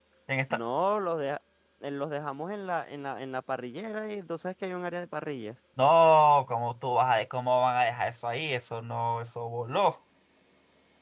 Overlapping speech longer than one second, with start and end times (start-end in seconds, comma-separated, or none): none